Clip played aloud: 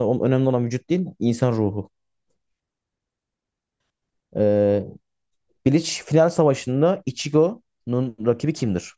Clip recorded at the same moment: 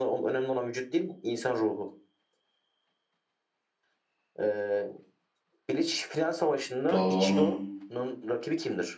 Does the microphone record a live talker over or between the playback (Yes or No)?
Yes